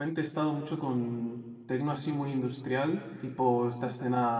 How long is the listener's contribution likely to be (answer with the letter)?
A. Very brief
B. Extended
A